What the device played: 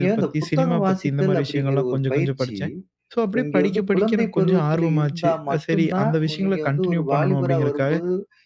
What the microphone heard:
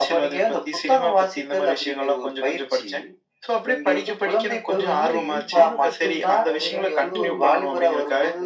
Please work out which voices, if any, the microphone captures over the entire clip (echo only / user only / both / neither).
both